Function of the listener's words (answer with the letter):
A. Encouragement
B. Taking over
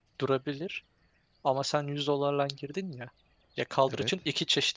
A